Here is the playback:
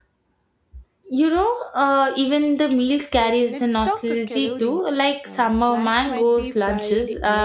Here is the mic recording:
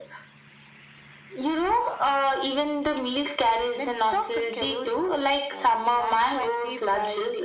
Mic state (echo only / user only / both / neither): echo only